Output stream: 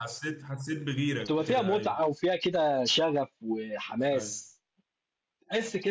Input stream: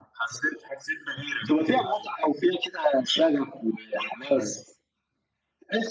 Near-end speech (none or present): none